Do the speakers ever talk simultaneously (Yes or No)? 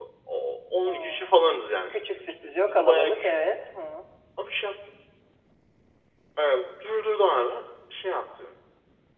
Yes